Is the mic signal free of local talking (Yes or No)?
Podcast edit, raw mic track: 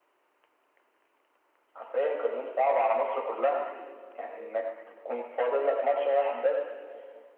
Yes